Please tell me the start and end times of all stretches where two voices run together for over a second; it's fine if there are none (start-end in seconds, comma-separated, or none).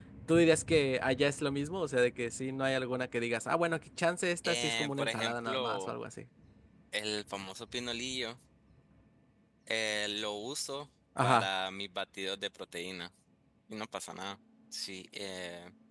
4.5-5.9